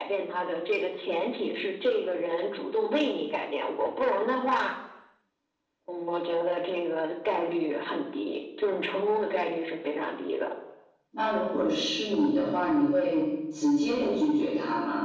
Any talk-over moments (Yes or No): No